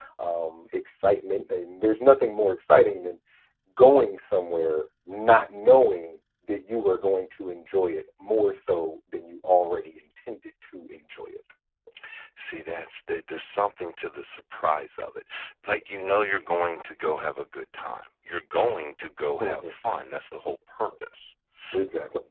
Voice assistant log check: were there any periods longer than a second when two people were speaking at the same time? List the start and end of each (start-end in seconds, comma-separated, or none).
none